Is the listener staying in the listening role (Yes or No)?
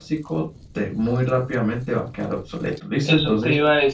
No